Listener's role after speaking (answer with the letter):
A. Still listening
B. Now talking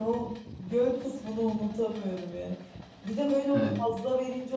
A